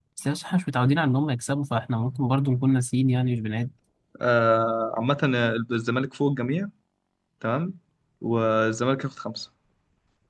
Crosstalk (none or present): none